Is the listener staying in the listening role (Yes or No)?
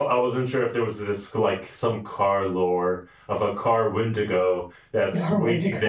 Yes